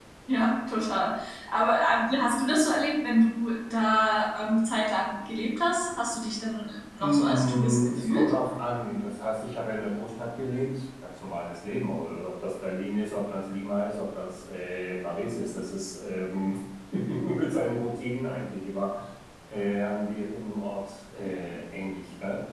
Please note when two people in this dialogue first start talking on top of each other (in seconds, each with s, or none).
7.0 s